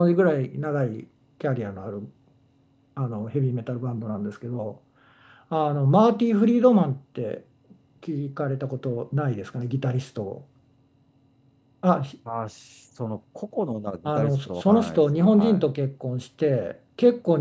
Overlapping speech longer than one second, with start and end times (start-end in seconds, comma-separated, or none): 14.1-15.6